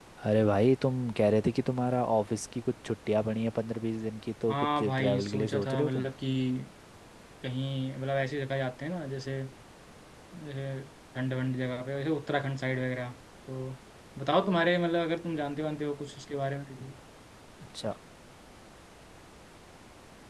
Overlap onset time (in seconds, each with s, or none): 4.5 s